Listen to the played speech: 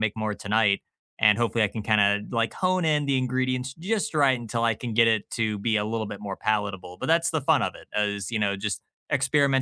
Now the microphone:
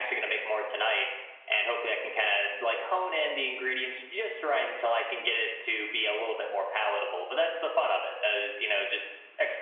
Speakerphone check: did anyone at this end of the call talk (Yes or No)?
No